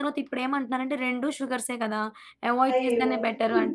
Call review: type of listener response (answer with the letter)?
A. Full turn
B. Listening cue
A